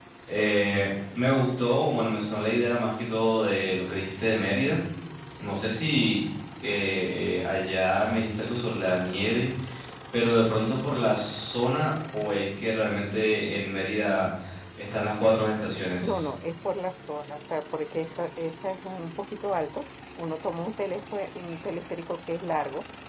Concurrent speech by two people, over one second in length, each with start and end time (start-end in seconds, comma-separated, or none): none